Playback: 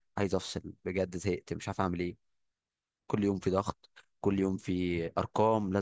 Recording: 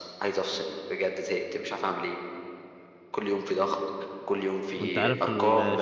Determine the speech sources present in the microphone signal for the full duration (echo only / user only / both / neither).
both